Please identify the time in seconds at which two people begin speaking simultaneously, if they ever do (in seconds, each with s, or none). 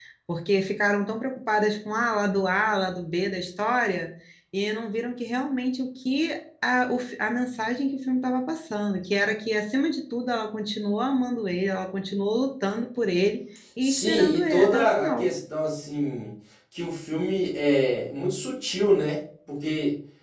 13.8 s